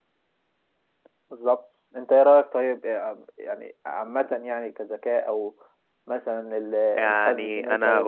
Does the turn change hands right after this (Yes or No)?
Yes